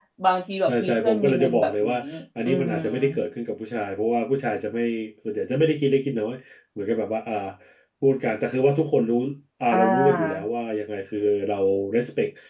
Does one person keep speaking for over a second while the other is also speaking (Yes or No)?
Yes